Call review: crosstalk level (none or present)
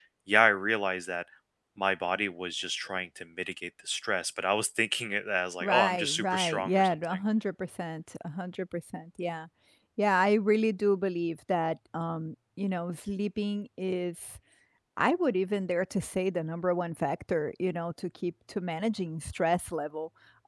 present